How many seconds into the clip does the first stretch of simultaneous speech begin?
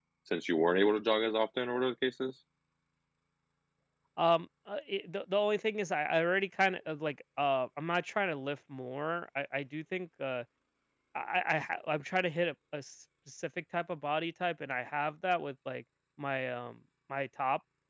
none

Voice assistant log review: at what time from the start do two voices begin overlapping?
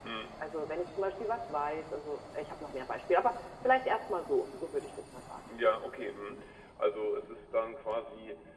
none

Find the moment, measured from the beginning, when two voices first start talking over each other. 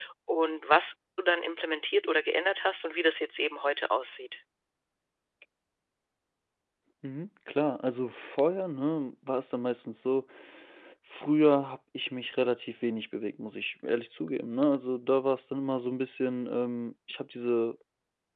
none

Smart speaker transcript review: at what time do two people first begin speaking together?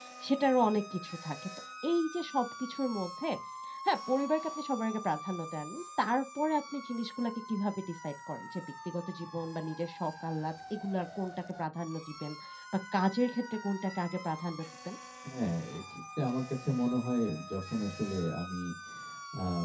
none

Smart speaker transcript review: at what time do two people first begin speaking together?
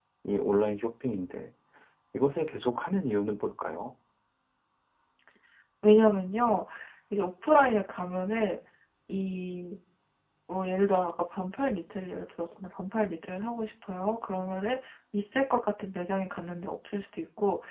none

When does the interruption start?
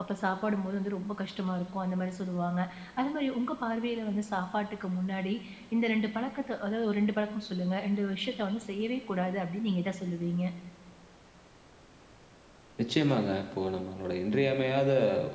none

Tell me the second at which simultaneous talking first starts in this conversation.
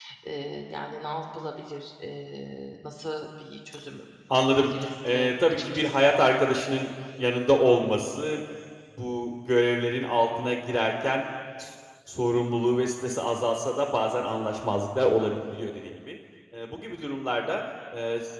4 s

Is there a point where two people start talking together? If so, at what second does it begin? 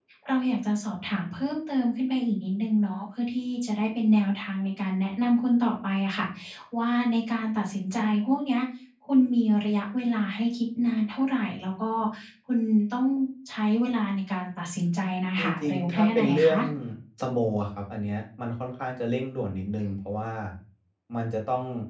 15 s

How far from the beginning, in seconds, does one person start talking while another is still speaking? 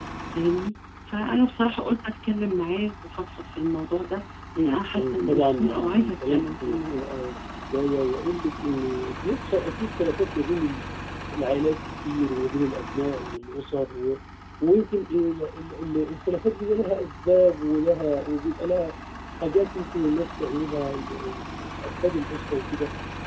5 s

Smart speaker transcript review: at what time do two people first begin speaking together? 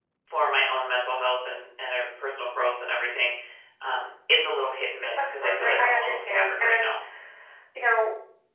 5 s

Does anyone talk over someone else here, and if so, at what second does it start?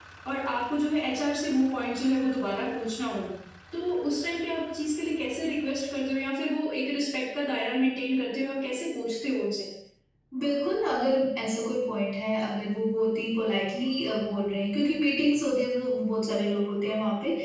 none

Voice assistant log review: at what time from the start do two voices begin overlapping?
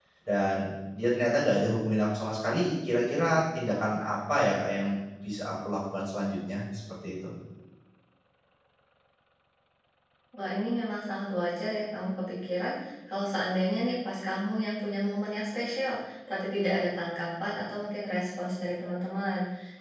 none

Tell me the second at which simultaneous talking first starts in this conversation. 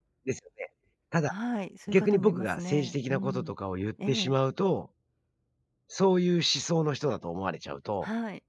2 s

